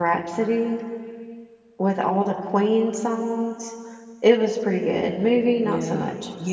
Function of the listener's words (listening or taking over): taking over